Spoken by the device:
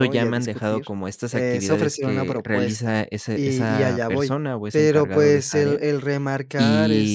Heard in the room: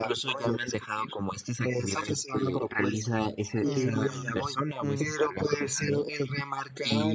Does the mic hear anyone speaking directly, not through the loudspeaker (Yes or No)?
Yes